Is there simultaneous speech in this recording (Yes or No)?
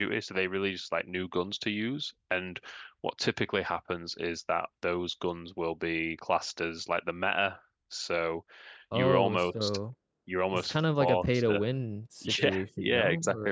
Yes